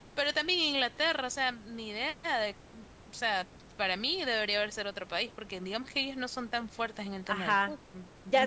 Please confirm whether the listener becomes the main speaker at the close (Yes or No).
Yes